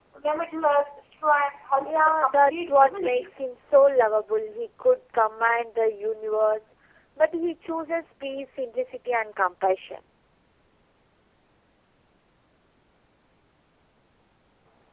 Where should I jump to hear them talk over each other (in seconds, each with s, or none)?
1.9 s